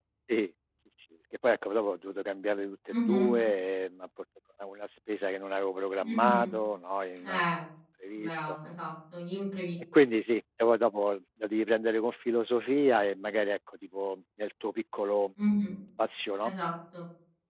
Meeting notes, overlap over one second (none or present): none